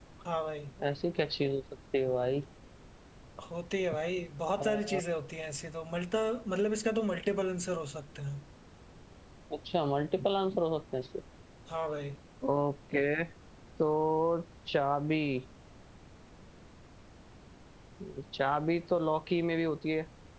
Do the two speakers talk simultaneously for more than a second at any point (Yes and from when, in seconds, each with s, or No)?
No